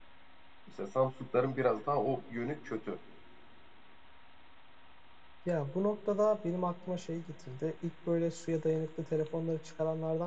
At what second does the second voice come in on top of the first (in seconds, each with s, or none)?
none